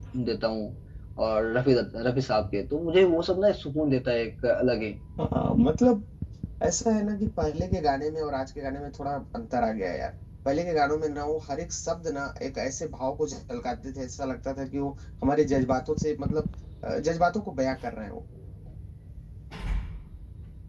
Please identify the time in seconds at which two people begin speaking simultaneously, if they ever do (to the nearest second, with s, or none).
none